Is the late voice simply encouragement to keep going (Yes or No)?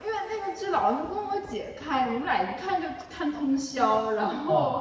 Yes